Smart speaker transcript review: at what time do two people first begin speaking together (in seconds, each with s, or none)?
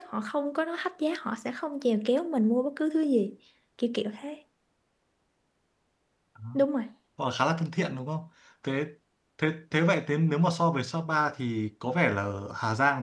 none